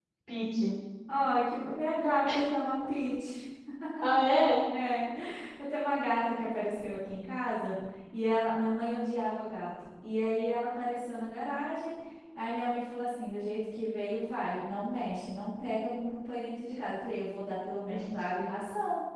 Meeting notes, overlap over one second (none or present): none